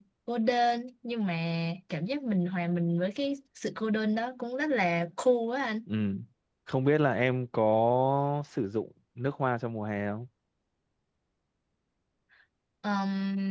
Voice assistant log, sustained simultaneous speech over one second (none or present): none